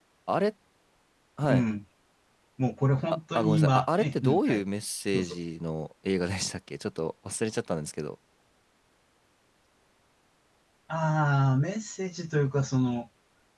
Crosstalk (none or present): present